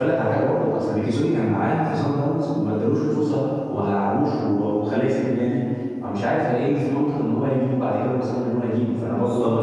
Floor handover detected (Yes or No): Yes